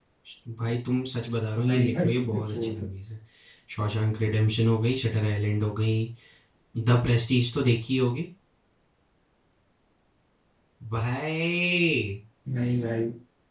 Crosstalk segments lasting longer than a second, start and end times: 1.7-2.9

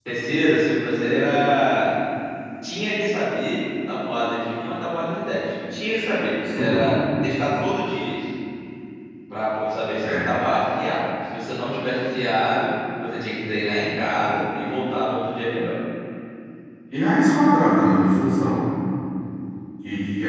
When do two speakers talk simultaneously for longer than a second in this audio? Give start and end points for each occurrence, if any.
none

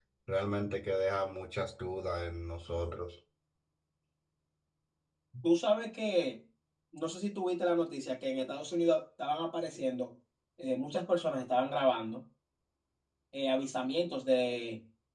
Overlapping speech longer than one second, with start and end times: none

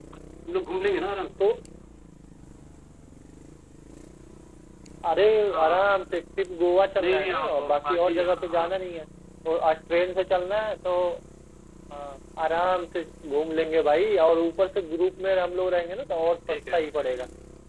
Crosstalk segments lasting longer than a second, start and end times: 7.0-8.7

